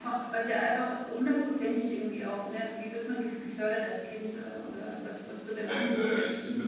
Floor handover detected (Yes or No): Yes